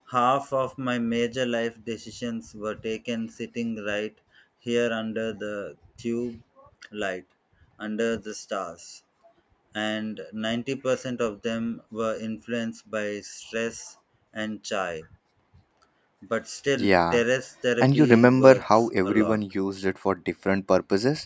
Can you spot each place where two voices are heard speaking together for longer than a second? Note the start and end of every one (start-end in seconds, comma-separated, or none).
17.8-19.4